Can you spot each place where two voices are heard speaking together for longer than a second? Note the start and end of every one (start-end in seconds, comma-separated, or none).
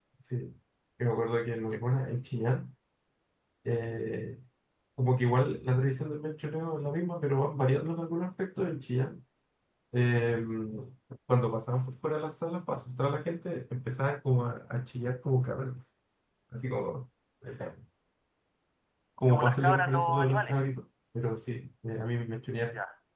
19.3-20.6